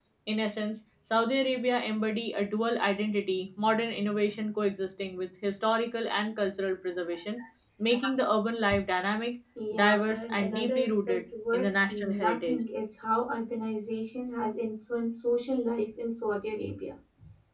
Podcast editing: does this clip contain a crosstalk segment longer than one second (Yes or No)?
Yes